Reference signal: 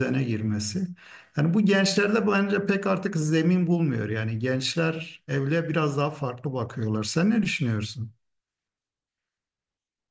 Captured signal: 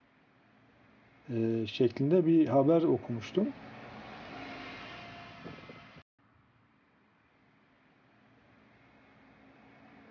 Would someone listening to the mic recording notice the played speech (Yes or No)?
No